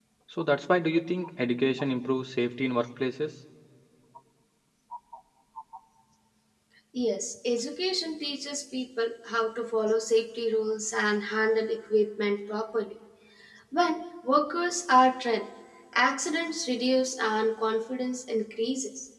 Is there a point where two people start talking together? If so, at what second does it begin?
none

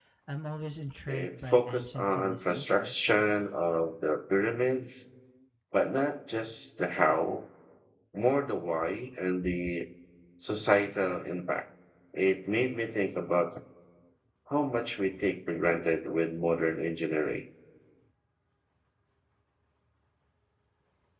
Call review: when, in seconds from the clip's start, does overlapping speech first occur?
1.1 s

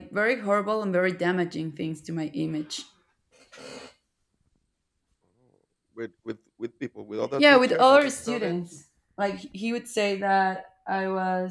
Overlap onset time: 7.4 s

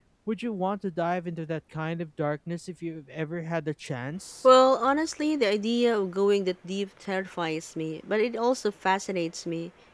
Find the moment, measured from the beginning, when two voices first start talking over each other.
none

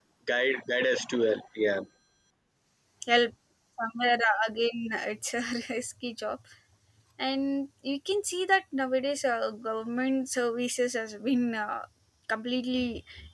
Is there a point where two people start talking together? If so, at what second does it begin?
none

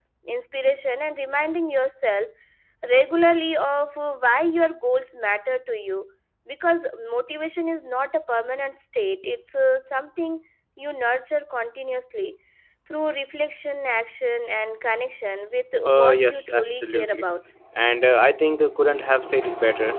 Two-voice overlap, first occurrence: 15.7 s

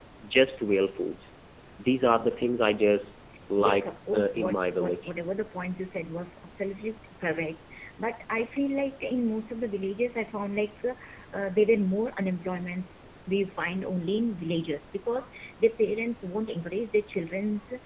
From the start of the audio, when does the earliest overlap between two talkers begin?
3.6 s

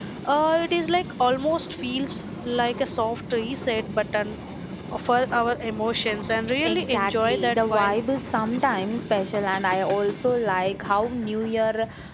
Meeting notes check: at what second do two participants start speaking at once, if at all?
6.6 s

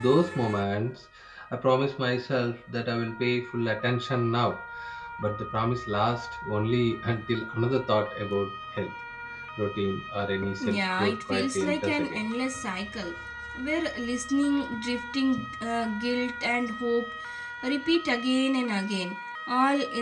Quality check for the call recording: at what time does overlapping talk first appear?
10.4 s

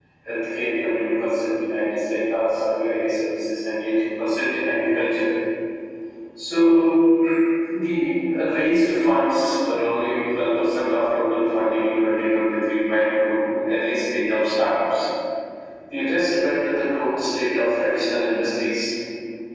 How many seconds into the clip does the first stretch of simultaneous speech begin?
none

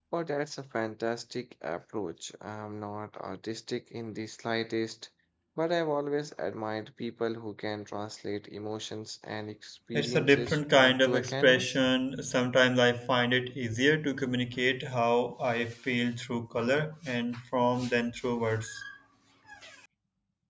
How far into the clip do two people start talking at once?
9.9 s

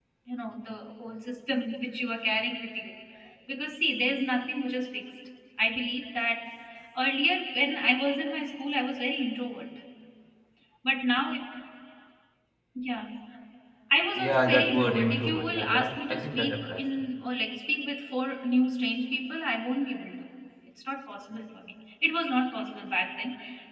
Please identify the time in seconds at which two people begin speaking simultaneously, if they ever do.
14.2 s

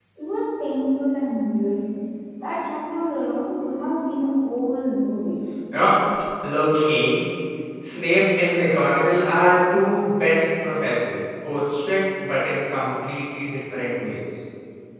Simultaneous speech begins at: none

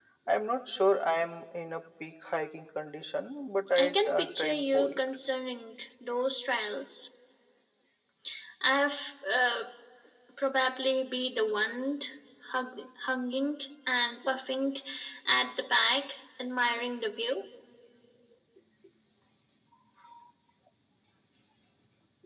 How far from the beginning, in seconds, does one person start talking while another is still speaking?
3.8 s

